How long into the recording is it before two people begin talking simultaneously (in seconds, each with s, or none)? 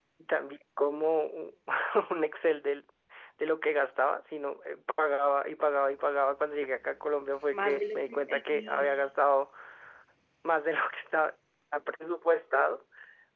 7.5 s